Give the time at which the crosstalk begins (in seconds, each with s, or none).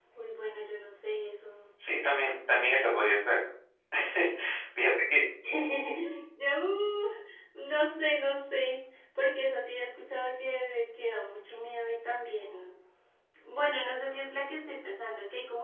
none